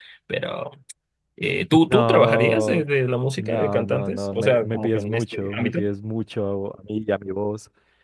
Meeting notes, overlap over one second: present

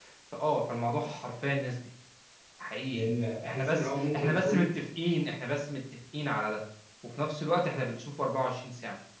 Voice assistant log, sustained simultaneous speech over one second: present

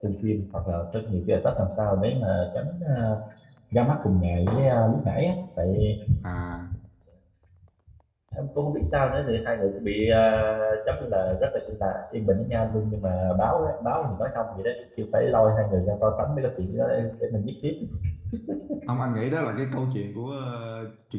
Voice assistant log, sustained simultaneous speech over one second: none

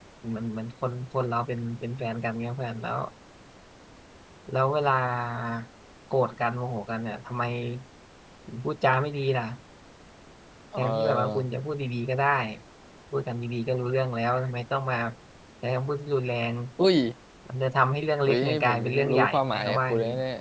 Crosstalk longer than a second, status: present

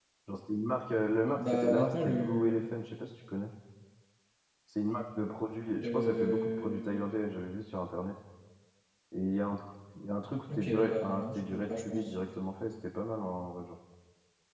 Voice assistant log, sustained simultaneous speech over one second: present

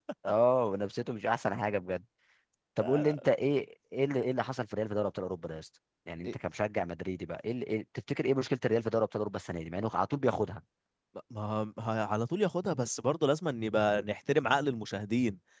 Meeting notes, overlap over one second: none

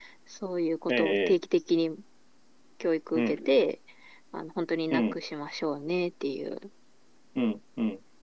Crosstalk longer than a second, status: none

